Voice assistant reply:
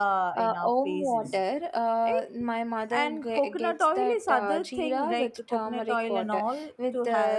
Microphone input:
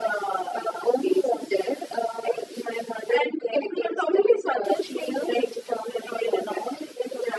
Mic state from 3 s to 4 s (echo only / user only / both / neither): echo only